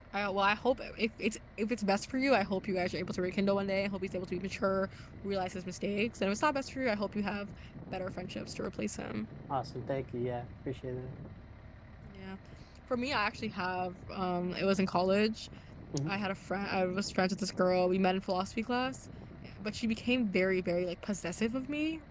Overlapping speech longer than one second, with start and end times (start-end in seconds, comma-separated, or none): none